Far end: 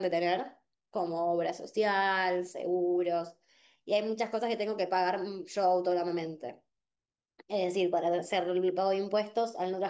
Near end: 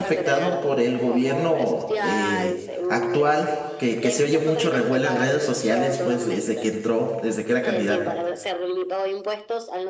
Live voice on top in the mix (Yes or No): Yes